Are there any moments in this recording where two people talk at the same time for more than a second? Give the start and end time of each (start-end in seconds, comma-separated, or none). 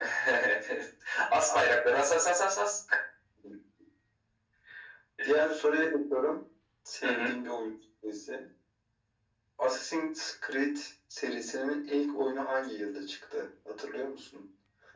none